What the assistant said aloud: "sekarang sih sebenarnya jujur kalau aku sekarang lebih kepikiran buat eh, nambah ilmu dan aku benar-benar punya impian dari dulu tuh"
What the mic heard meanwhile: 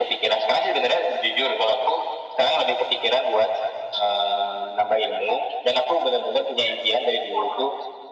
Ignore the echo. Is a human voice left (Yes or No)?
No